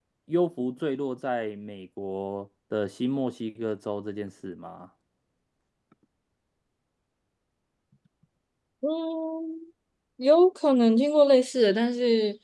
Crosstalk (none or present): none